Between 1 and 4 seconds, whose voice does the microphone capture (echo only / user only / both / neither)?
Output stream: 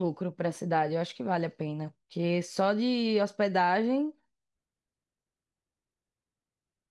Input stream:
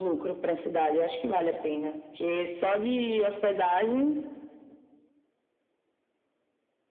echo only